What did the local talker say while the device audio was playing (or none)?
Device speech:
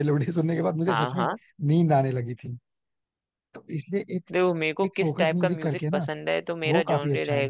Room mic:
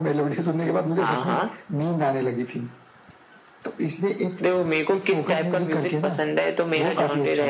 none